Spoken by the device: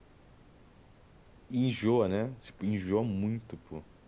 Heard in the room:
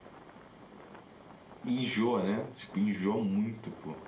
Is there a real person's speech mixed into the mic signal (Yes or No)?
No